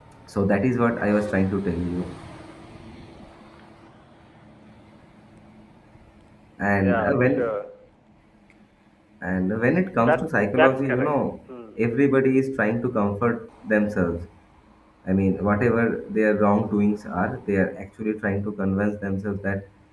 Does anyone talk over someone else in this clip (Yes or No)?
Yes